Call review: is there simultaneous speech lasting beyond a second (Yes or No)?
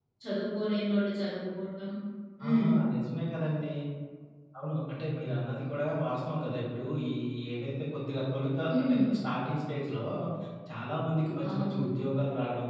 No